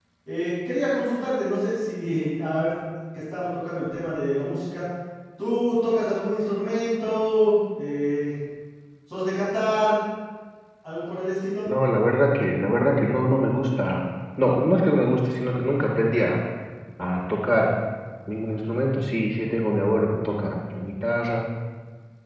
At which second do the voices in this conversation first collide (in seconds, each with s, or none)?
none